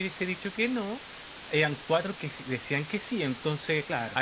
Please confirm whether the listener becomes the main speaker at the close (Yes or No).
No